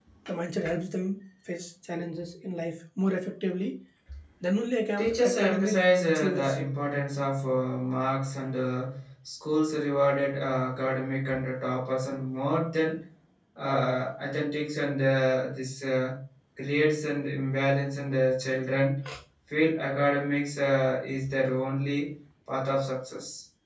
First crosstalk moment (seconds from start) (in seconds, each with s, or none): 5.0 s